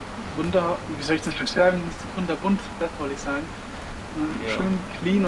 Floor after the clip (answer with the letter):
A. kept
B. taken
A